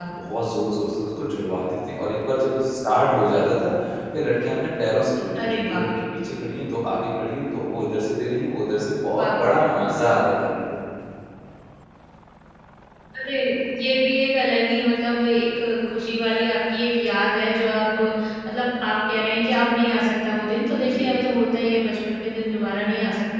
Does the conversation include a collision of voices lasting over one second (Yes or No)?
No